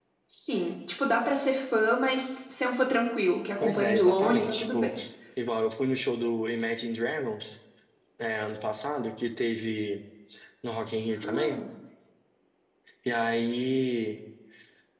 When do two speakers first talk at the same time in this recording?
3.6 s

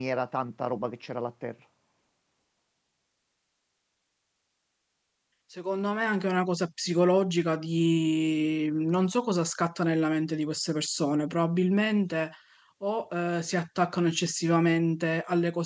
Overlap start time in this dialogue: none

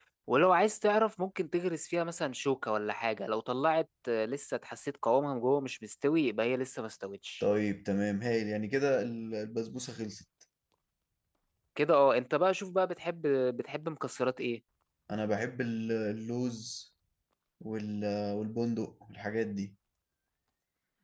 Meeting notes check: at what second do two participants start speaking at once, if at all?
none

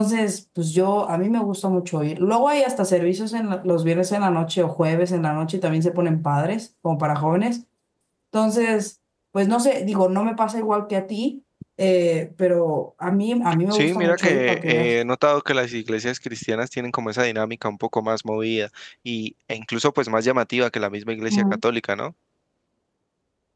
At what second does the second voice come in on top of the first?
13.7 s

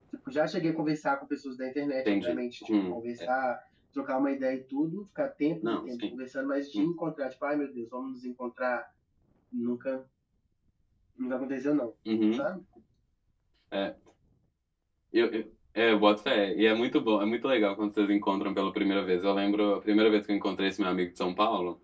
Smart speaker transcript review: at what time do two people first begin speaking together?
2.0 s

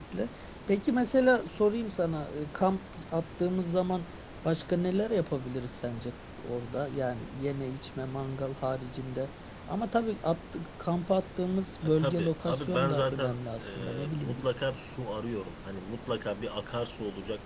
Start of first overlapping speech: 11.8 s

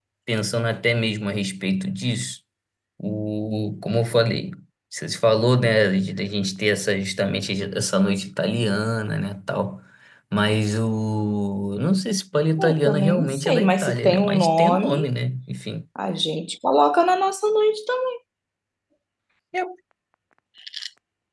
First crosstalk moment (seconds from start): 12.6 s

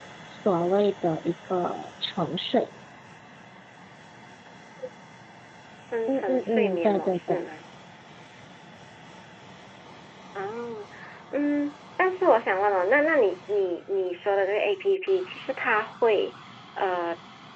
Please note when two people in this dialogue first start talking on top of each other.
6.1 s

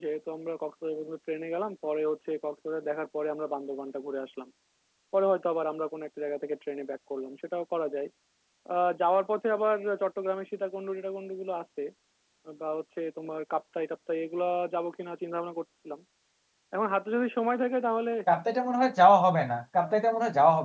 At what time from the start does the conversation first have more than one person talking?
none

